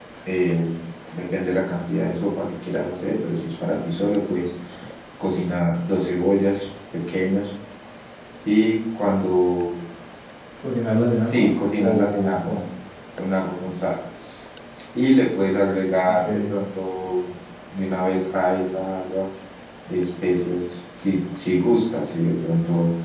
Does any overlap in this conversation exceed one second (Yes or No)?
Yes